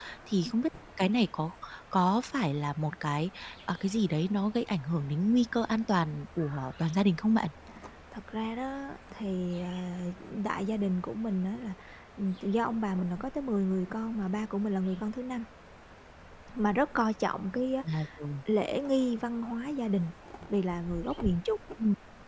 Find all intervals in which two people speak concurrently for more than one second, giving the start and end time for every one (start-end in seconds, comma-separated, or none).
none